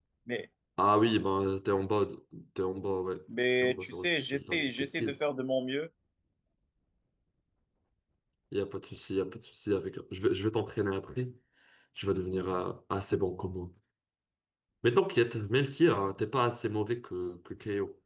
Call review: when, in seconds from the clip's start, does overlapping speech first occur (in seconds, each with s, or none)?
3.6 s